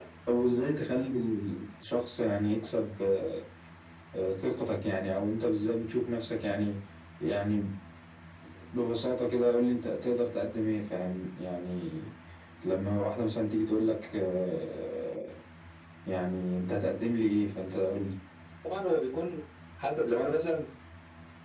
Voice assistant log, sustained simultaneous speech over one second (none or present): none